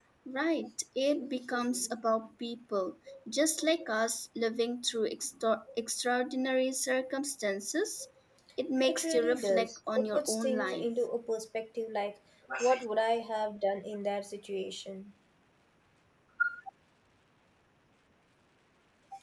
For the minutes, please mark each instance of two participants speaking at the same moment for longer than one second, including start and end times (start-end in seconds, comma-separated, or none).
8.8-10.9